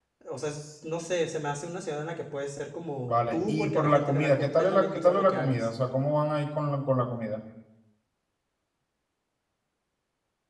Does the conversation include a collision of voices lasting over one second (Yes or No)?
Yes